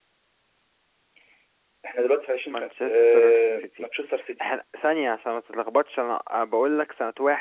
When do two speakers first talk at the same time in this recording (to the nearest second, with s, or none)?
3 s